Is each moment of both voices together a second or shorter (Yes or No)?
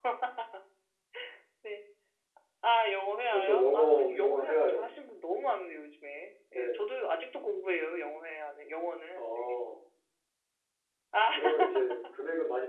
No